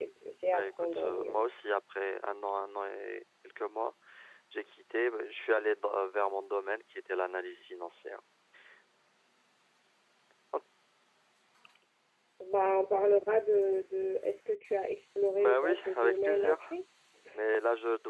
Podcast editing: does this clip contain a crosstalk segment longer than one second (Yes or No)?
Yes